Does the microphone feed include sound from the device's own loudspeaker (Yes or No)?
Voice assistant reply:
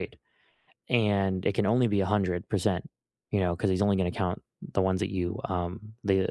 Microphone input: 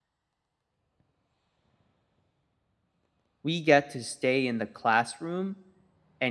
No